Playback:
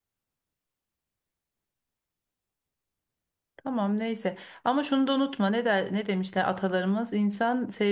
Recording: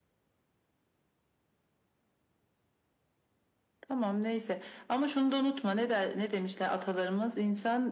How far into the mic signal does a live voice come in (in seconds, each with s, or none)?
none